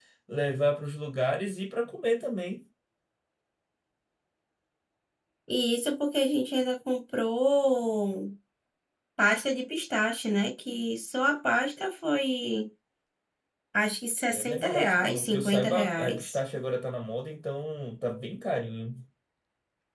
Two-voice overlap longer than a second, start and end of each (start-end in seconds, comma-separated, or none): 14.3-16.4